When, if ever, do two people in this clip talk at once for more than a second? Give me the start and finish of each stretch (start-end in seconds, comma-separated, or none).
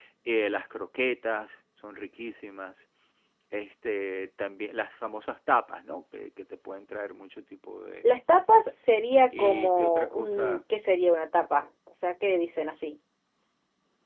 9.4-10.6